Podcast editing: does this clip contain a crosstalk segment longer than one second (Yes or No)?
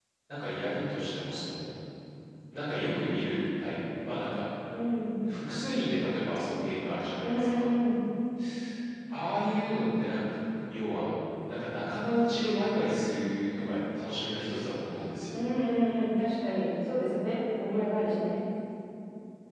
No